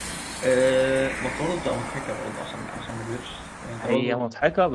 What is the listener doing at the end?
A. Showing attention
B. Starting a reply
B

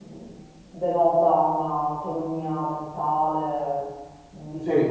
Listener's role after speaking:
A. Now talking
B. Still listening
B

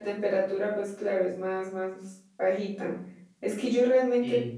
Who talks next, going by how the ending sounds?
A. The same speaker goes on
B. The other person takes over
A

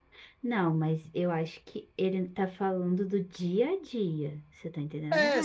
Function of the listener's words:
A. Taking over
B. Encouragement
A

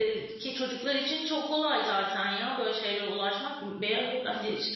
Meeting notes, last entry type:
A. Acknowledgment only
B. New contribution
A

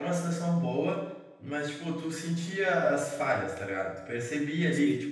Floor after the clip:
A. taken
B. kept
B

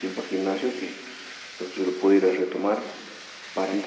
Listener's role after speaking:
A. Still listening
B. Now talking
A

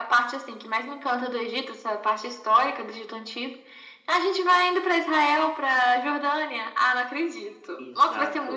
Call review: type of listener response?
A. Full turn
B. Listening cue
A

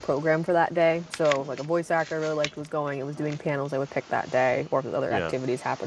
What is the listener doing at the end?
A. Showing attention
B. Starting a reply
A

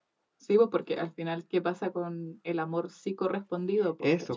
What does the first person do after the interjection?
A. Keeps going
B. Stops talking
B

